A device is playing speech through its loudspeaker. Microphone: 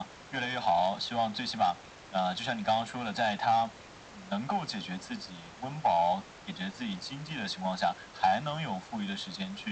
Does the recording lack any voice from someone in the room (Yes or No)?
Yes